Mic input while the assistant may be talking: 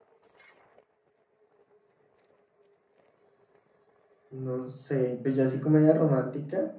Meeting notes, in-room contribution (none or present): present